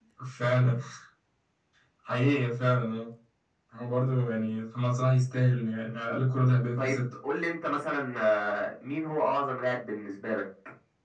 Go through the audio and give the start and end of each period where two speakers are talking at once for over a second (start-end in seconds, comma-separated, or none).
none